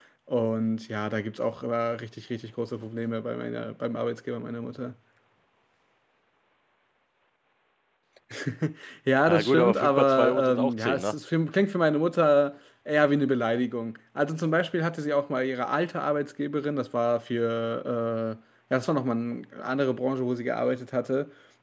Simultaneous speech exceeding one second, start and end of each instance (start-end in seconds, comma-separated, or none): 9.3-11.1